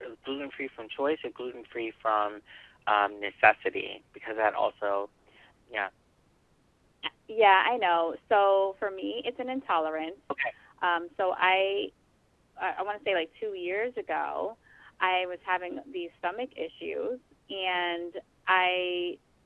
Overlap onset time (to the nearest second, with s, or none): none